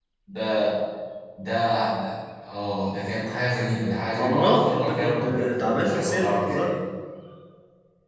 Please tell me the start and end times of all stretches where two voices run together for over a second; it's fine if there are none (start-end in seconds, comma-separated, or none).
4.2-6.7